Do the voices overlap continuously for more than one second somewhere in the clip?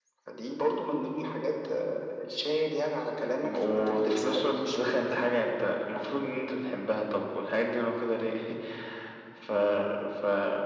Yes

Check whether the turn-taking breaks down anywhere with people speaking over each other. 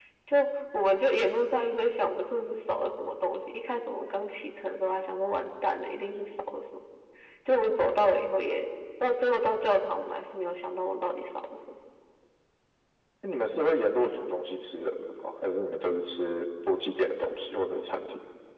No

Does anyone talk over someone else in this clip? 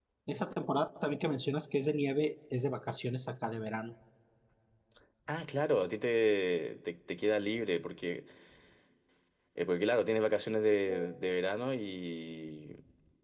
No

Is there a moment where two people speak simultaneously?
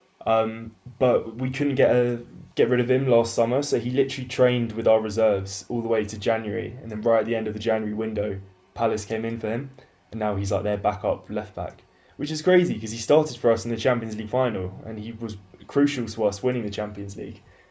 No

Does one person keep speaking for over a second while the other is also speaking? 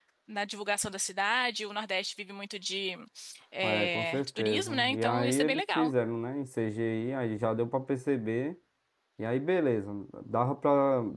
Yes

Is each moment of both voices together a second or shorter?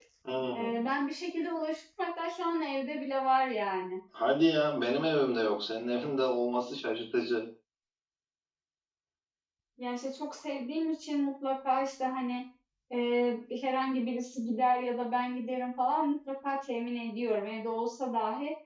Yes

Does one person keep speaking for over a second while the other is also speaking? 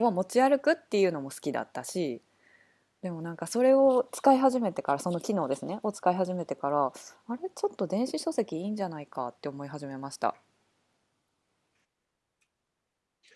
No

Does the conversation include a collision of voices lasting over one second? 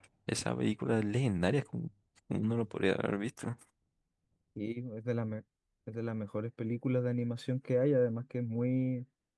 No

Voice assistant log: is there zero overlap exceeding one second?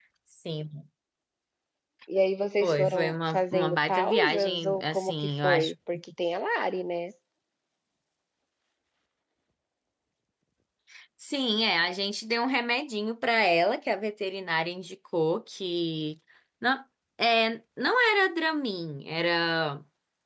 No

